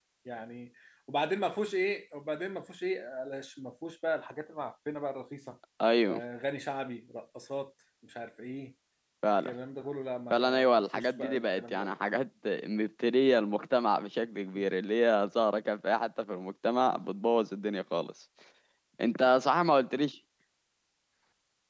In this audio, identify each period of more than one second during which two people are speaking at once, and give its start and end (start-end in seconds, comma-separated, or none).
10.3-11.9